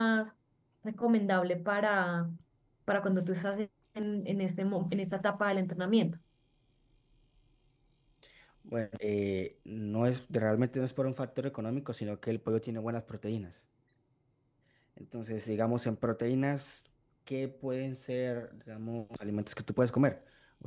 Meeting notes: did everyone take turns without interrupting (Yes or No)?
Yes